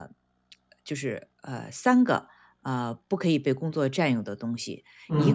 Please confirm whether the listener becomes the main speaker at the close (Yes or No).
No